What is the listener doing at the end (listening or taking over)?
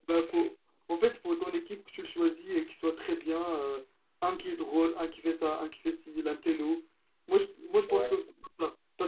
listening